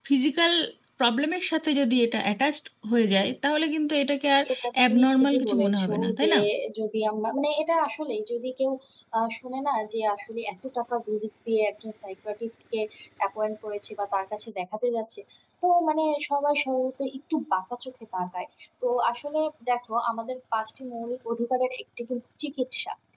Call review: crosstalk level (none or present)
present